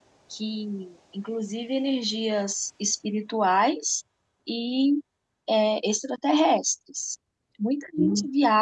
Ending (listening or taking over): listening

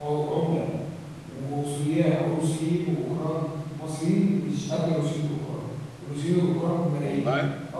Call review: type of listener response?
listening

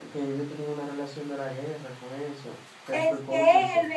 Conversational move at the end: taking over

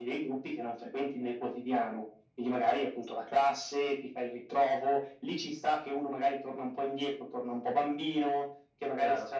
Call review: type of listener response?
listening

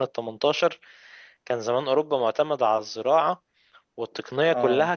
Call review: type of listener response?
listening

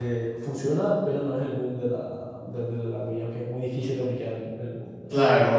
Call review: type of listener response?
taking over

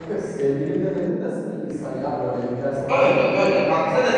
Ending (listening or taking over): taking over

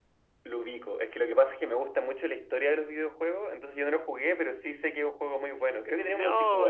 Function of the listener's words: taking over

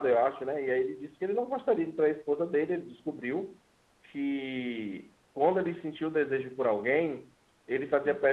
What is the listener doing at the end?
listening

